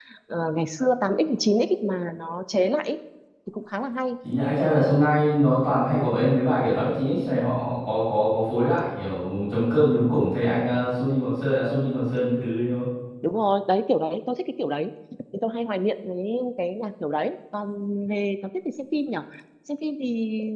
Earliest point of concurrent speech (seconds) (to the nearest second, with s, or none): none